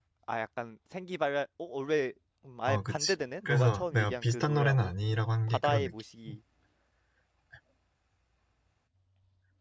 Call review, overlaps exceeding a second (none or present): present